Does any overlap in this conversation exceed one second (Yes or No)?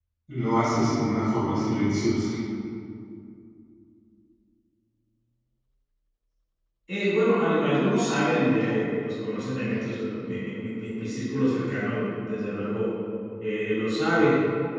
No